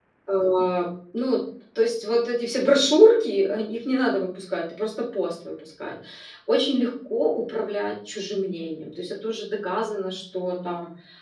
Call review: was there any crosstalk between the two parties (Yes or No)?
No